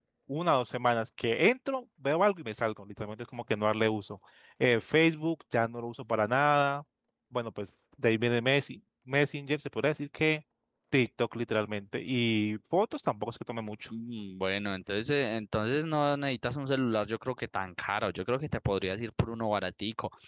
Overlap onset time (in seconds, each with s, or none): none